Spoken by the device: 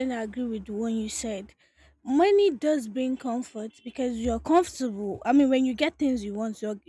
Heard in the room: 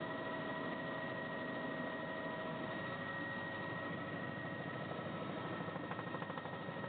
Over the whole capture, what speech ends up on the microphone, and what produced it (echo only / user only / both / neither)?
neither